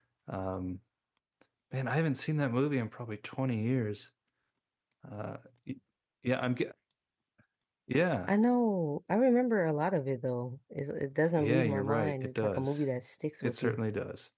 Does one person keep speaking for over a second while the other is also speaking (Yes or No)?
Yes